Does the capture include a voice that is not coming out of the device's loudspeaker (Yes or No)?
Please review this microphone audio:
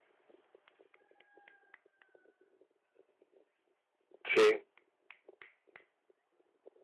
Yes